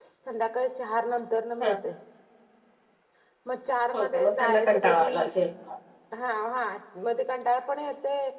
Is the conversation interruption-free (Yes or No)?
No